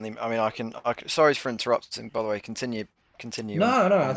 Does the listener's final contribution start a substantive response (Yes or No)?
Yes